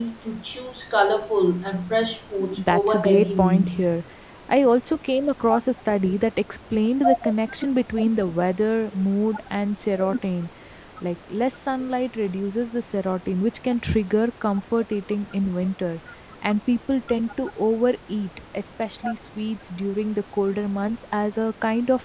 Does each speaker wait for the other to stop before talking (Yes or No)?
No